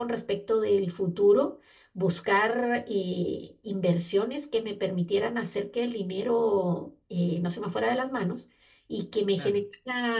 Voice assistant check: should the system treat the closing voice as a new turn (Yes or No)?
No